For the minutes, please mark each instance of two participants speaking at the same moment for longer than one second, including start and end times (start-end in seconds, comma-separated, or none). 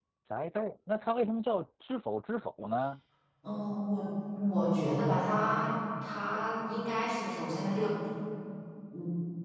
none